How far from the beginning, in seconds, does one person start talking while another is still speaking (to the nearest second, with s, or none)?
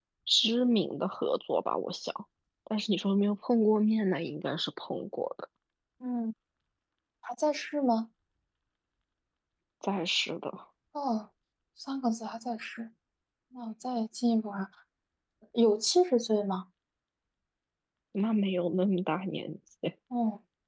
none